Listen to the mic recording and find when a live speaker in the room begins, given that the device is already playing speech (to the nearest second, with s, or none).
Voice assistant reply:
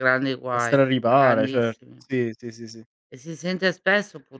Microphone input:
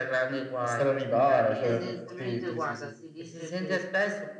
2 s